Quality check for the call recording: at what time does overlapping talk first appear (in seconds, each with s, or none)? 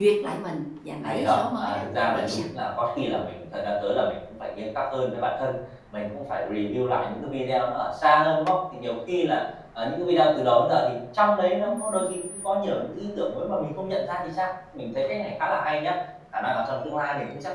1.0 s